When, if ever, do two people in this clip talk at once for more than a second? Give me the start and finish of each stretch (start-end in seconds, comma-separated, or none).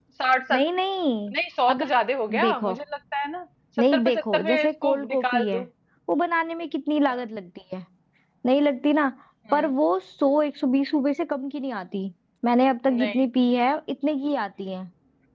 3.9-5.6